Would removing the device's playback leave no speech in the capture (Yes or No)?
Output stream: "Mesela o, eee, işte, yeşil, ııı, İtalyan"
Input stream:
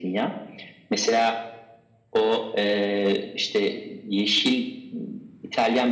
Yes